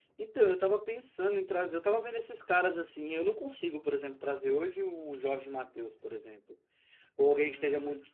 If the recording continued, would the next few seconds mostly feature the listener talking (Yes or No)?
No